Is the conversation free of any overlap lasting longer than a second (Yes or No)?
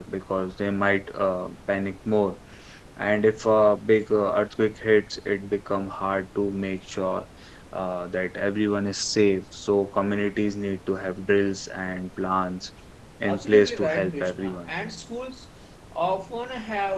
No